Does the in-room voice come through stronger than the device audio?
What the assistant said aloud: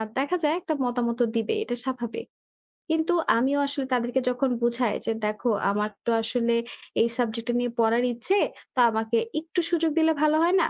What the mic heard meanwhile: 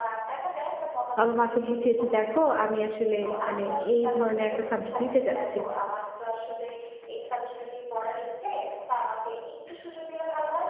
Yes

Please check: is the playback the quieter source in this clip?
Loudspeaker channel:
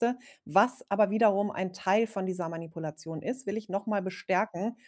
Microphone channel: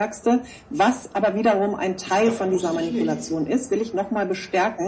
No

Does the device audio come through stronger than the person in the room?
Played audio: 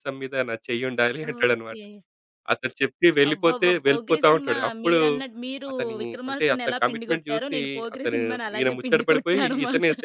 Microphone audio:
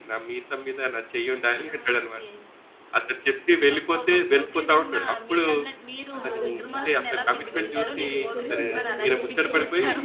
Yes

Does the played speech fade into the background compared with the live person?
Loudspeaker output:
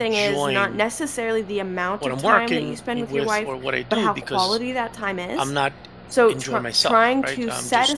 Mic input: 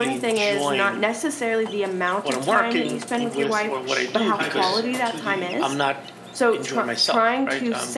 No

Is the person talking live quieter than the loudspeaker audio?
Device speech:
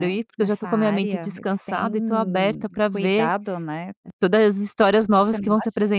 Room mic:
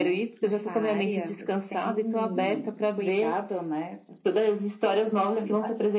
Yes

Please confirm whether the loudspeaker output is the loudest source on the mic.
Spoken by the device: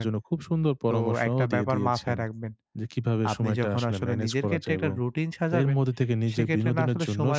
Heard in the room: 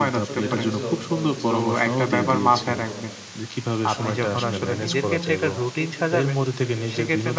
Yes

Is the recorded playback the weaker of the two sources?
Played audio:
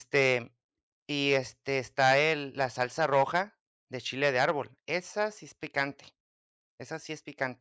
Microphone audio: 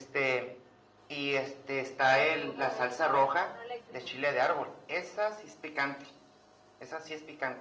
No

